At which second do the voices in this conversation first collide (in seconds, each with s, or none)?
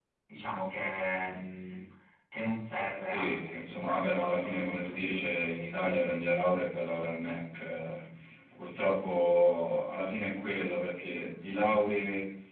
3.1 s